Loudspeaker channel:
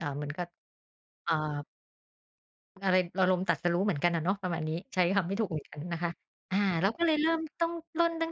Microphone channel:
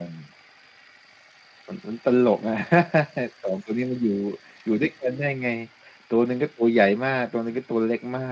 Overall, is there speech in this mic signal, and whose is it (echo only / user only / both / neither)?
user only